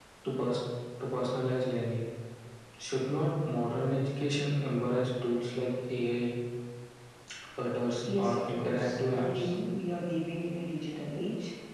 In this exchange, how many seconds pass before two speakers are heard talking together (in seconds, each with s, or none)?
8.1 s